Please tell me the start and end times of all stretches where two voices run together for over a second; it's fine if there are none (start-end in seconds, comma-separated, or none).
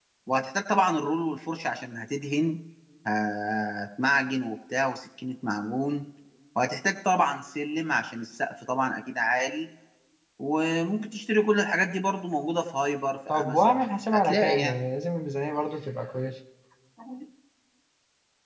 13.3-14.8